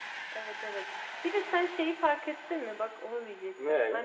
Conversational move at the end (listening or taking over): listening